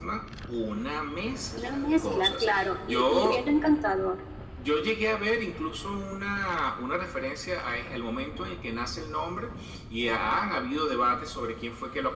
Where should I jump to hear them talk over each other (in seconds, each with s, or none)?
1.5 s